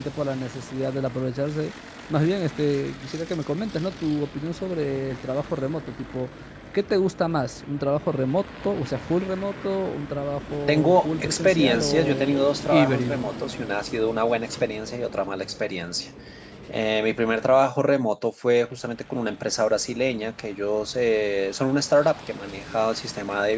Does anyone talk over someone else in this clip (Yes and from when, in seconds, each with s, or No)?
Yes, from 10.7 s